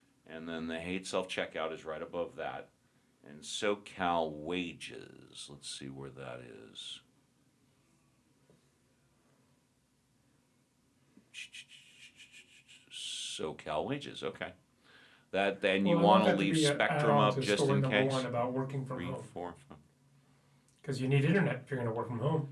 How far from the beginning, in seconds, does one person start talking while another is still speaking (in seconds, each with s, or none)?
15.8 s